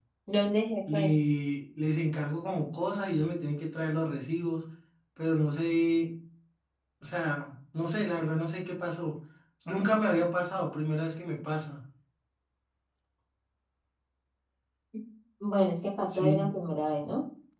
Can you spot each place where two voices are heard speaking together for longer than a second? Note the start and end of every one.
none

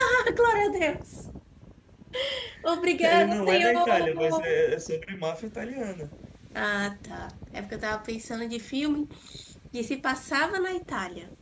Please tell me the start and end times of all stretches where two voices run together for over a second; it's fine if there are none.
3.0-4.5

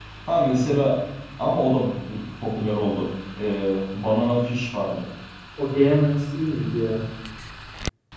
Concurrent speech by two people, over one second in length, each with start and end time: none

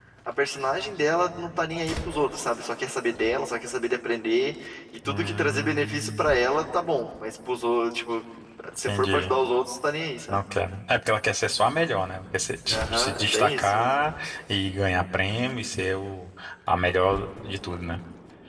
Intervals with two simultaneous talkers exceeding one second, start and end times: 5.0-6.3, 12.7-13.9

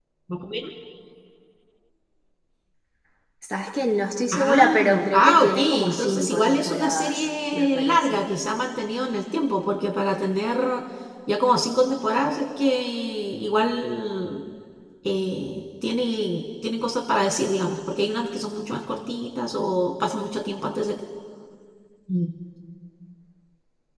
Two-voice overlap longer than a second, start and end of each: 4.3-8.2

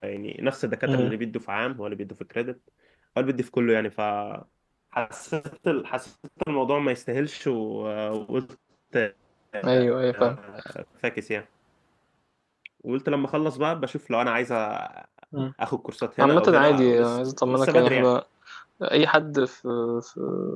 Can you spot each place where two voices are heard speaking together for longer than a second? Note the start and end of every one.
16.2-18.1

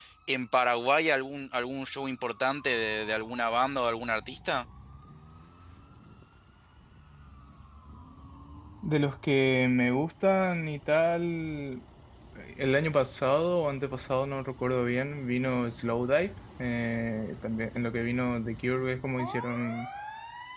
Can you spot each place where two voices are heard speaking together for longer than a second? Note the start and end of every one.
none

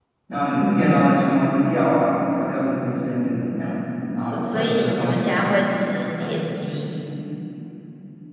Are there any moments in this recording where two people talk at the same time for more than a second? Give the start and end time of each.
4.2-5.4

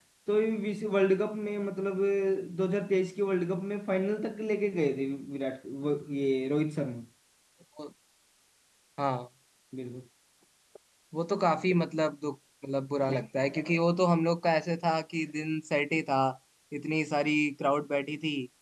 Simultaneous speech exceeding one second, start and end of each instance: none

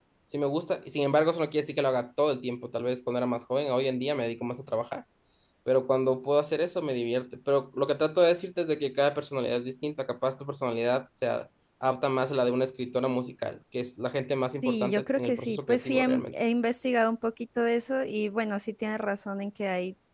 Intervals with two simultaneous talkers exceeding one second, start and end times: 14.4-16.2

